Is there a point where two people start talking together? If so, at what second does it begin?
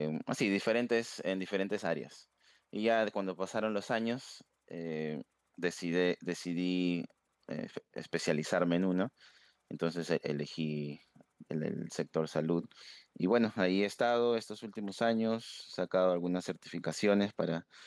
none

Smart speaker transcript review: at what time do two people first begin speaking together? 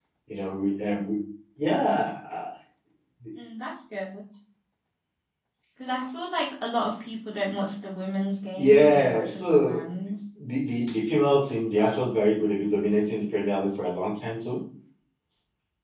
8.6 s

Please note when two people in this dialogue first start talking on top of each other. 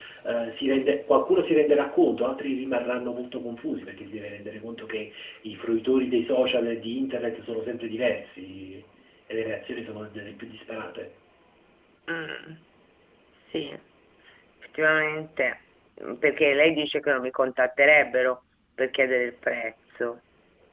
none

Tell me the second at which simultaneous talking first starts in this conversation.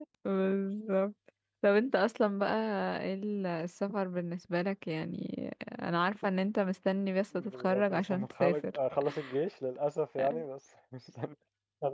7.3 s

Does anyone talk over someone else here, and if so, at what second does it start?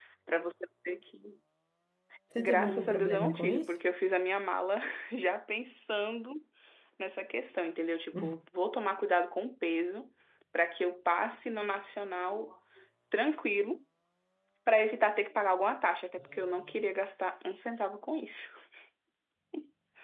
2.4 s

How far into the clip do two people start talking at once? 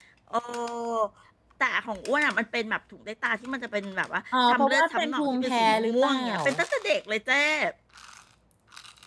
4.3 s

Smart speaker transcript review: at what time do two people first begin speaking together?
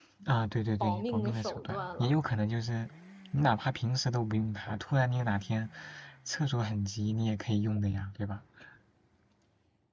0.8 s

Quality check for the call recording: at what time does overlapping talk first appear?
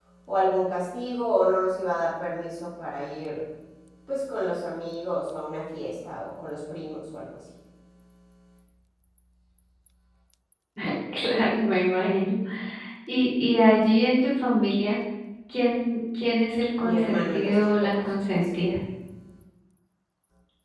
16.8 s

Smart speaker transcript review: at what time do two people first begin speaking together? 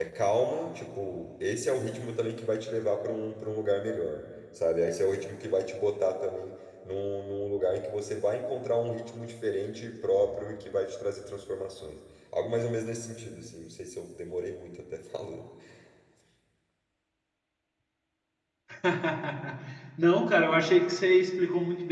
none

